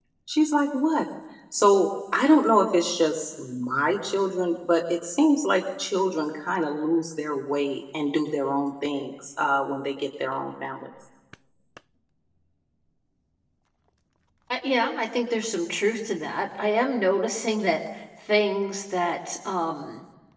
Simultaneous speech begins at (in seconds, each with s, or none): none